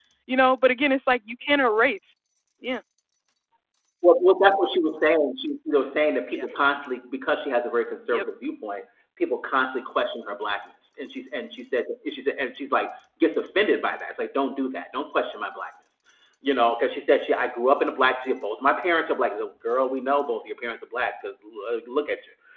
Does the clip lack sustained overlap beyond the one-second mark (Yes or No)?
Yes